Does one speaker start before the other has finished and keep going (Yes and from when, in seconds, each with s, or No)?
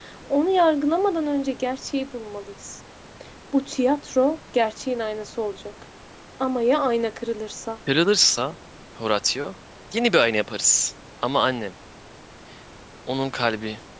No